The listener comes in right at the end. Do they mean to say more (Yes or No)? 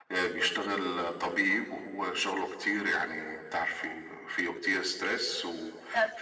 No